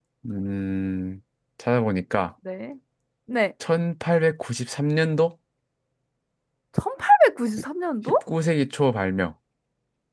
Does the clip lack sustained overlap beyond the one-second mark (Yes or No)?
Yes